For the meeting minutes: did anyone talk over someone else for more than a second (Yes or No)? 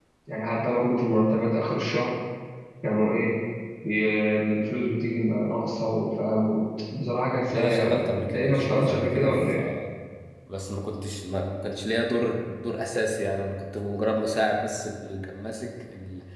Yes